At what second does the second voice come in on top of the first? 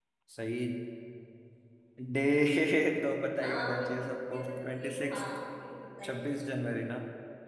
3 s

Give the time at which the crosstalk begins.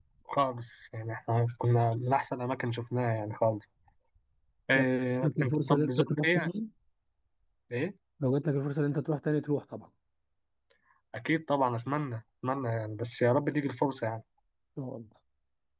5 s

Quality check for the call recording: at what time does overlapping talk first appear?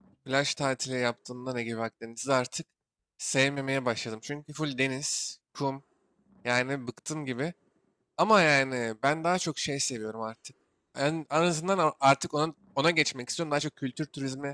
none

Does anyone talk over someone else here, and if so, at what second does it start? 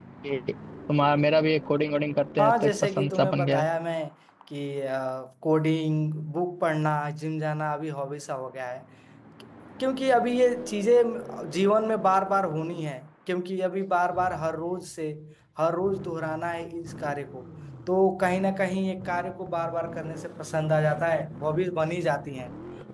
2 s

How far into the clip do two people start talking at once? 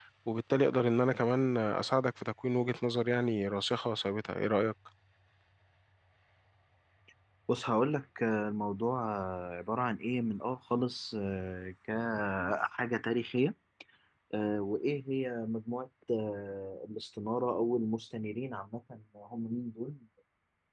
none

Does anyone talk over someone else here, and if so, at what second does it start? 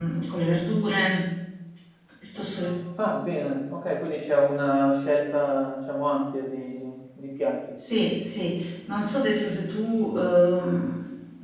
none

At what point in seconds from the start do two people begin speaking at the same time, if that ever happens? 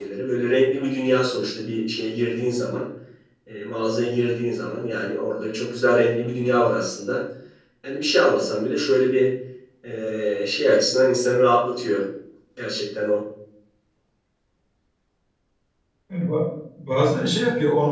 none

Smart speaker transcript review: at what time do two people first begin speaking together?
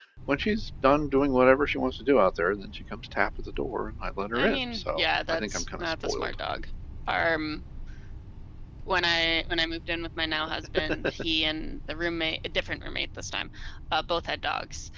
4 s

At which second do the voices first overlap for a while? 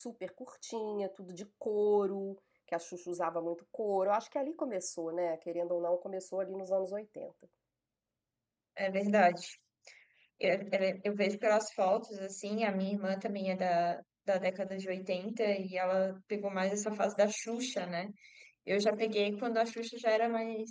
none

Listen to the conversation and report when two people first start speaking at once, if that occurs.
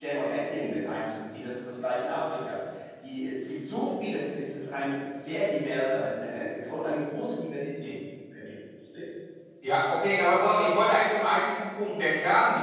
none

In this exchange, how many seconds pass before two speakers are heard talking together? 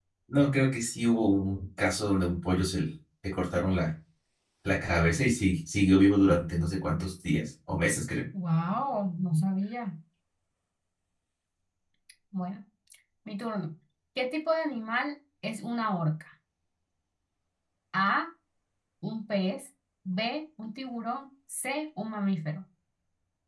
none

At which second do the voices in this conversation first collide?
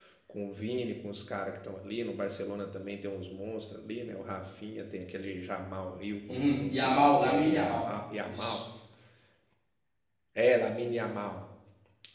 6 s

